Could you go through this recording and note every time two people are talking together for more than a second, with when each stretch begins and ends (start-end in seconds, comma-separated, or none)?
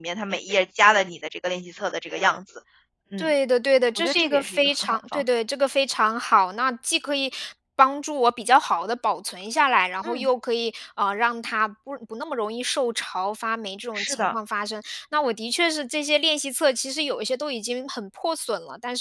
4.0-5.2